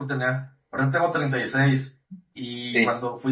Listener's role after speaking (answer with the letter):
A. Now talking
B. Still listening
B